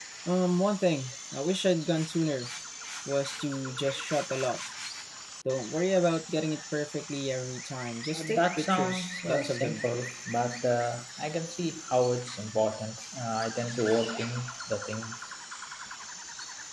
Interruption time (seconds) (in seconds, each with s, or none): 8.1 s